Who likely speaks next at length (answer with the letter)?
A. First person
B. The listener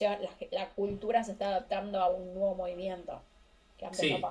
B